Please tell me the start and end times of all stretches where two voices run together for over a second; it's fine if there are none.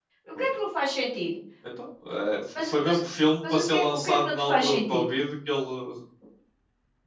3.5-5.0

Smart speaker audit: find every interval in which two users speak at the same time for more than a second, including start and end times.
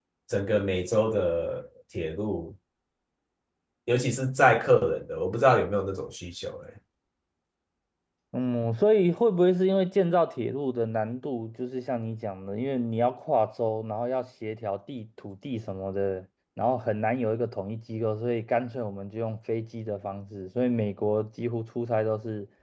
none

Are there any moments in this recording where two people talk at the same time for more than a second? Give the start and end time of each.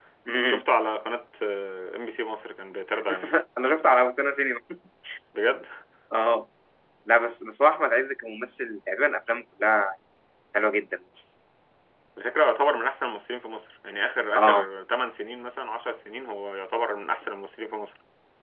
none

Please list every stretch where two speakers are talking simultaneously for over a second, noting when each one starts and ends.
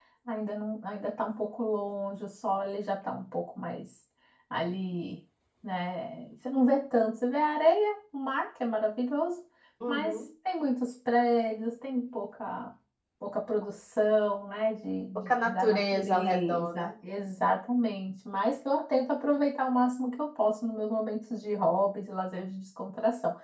15.3-16.9

